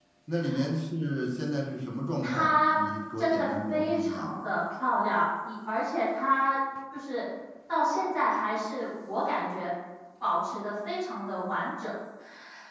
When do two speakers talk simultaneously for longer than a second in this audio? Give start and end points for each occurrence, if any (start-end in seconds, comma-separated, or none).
3.2-4.4